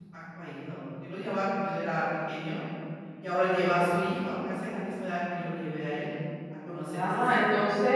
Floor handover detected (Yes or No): Yes